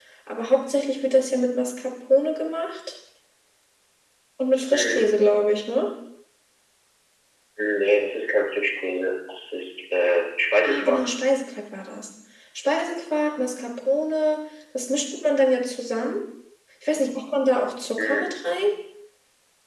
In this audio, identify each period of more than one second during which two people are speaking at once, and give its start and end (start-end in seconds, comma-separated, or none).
none